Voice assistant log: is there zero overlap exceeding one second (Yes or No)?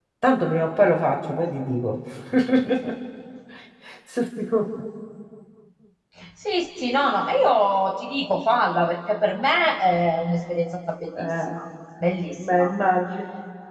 Yes